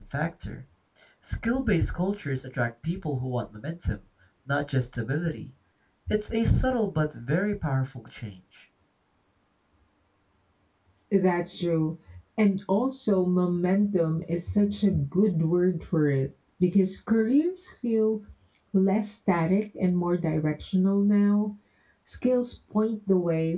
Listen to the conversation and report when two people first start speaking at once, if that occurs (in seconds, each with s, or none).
none